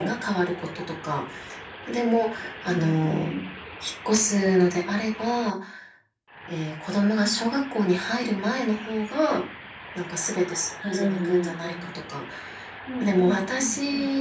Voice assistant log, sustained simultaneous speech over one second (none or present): present